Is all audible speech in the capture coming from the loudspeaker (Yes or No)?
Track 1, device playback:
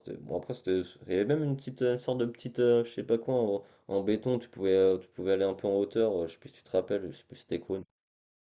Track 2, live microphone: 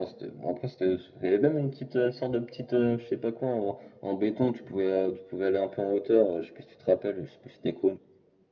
Yes